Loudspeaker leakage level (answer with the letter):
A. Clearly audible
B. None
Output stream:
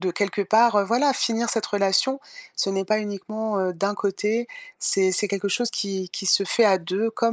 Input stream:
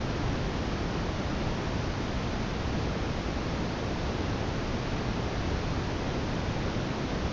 B